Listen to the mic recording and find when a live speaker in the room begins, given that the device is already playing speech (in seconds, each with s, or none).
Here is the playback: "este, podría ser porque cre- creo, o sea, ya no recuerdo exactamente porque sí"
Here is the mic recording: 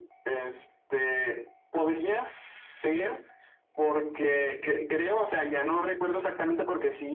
none